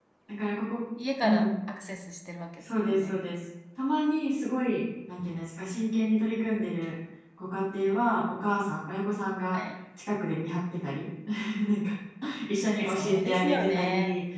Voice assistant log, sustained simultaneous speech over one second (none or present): present